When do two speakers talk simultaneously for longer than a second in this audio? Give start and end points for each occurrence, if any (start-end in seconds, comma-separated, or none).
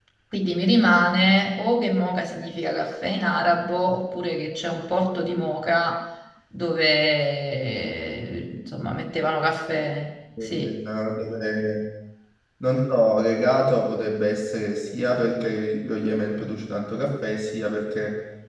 none